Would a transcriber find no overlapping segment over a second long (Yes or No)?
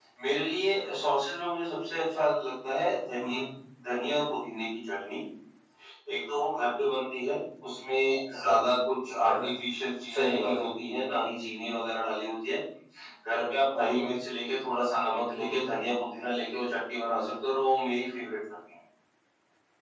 Yes